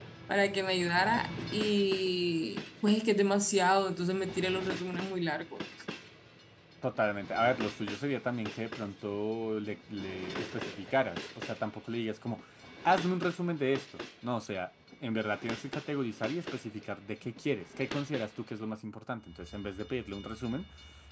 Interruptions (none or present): none